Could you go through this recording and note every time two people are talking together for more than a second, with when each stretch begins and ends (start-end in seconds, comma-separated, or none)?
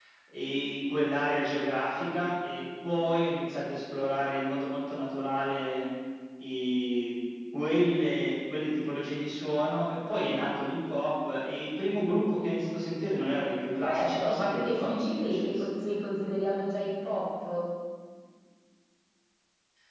13.8-15.7